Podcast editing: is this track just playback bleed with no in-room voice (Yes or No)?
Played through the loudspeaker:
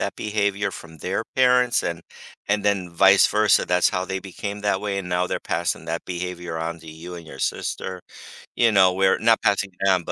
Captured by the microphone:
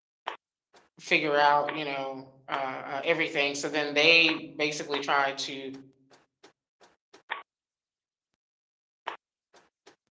No